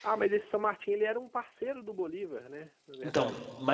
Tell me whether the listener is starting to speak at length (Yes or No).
Yes